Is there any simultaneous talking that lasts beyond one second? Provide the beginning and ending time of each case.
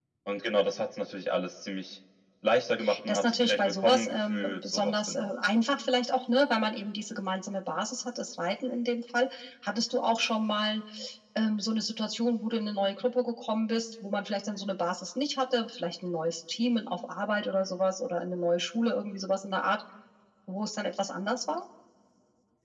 3.1-5.3

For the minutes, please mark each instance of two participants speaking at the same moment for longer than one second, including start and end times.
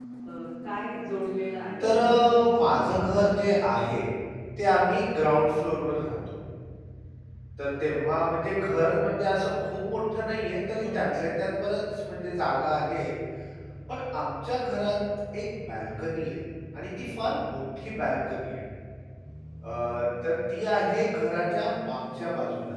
1.8-3.6

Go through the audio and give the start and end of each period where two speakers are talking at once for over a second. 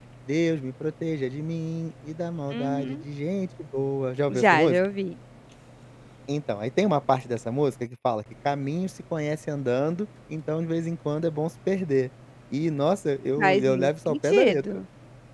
13.4-14.8

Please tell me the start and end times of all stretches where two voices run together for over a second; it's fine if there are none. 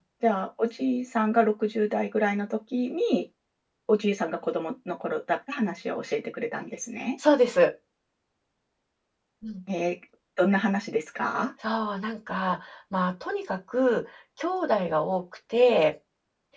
none

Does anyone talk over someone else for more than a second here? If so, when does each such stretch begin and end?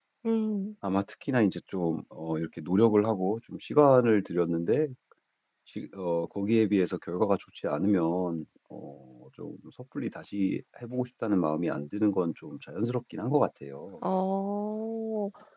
none

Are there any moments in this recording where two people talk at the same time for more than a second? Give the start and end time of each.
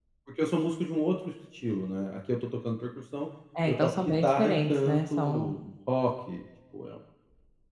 3.7-5.5

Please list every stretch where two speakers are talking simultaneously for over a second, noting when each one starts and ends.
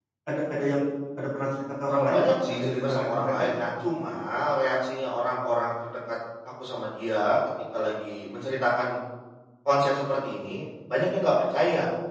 1.9-3.6

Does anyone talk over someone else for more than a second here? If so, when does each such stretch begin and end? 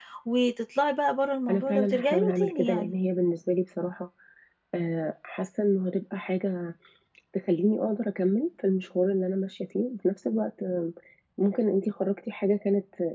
1.5-2.9

